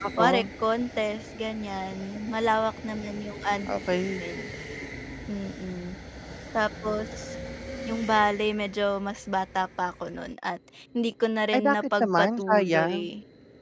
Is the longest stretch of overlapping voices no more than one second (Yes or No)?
No